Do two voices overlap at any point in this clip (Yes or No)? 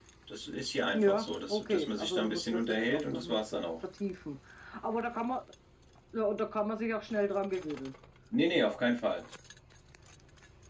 Yes